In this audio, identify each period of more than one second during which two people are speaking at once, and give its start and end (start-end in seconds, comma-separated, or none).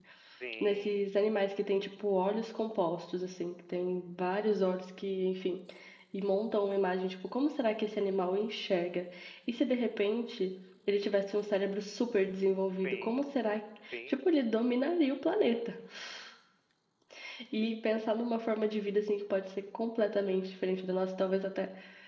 none